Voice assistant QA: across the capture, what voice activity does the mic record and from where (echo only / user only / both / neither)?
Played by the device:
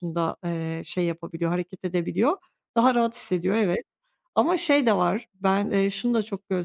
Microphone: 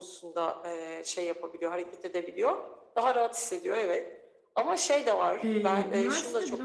both